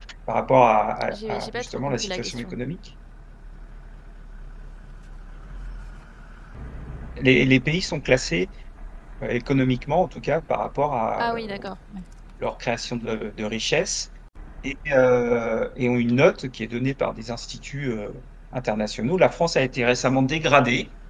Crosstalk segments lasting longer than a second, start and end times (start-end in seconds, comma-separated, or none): 1.3-2.6